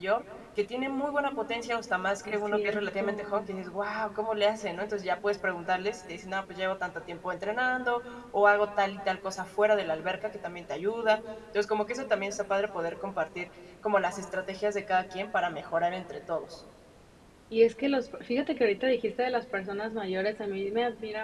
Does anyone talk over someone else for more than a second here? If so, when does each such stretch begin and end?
2.2-3.5

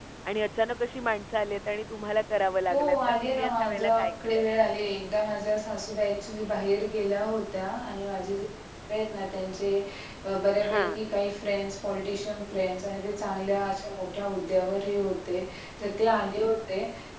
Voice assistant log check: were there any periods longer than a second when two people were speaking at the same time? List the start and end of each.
2.7-4.5

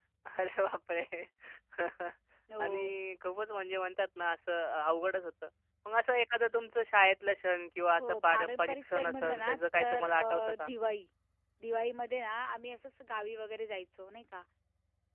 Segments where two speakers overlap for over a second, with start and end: 8.0-10.7

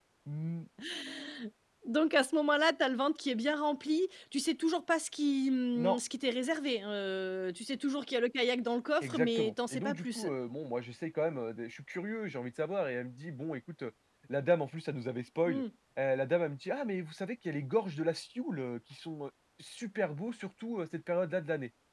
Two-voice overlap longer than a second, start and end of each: 9.0-10.3

